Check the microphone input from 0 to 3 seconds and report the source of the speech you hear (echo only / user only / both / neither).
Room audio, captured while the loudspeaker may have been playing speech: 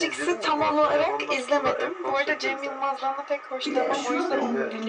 echo only